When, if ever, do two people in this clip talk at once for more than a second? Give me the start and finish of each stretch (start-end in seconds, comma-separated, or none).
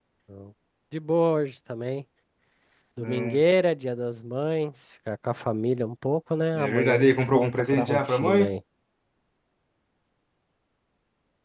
6.5-8.5